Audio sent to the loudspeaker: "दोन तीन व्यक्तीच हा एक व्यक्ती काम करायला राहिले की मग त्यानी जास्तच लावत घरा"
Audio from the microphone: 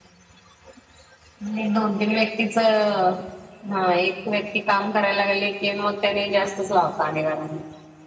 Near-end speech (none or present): none